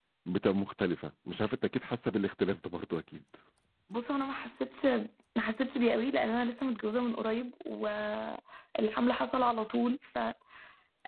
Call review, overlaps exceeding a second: none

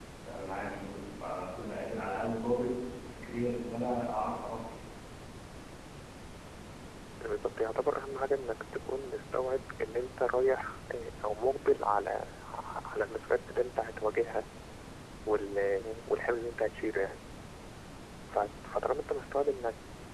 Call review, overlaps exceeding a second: none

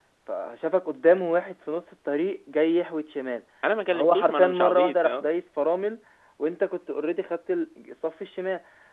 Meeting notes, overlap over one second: present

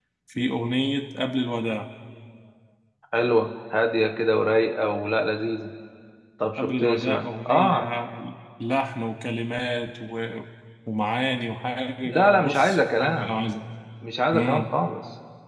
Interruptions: present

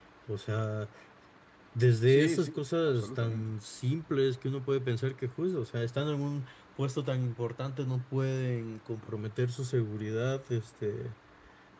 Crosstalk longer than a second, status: present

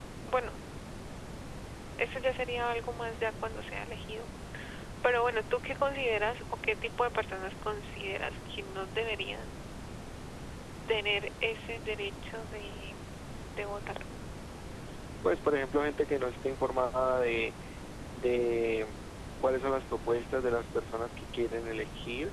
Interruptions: none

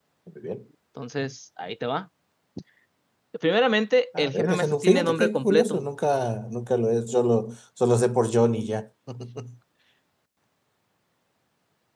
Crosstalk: present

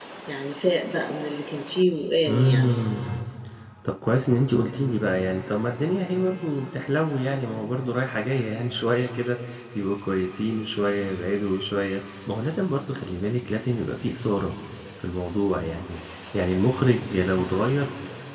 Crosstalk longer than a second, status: none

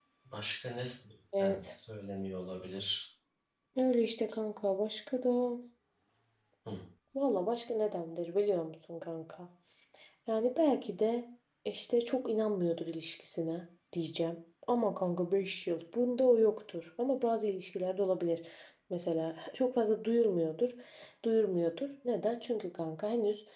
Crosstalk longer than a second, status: none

